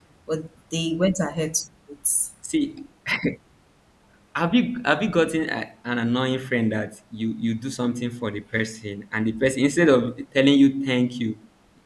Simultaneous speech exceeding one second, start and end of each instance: none

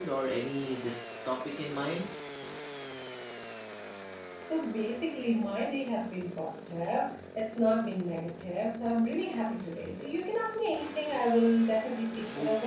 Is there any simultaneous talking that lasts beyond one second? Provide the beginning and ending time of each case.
none

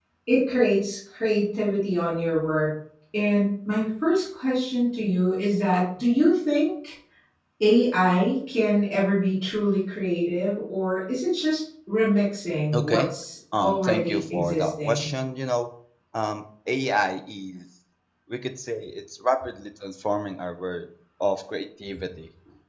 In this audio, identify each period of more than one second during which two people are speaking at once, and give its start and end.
13.6-15.1

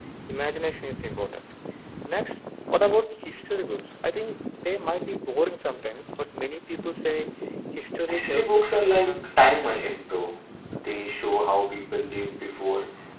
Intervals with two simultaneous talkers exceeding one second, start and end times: 8.1-10.2

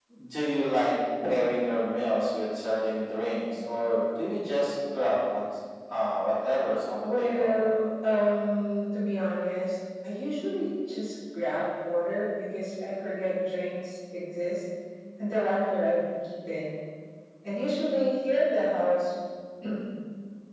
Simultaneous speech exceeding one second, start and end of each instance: none

